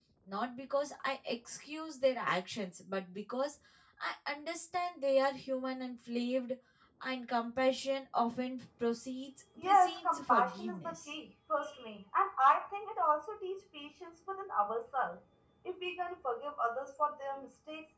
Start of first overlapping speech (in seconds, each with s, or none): 9.6 s